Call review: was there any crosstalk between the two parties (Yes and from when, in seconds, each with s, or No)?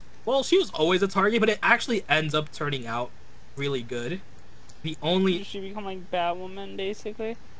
No